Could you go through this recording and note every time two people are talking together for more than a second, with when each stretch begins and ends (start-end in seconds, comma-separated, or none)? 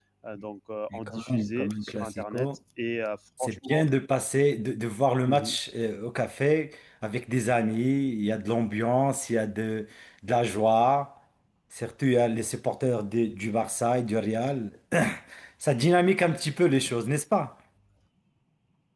1.1-2.5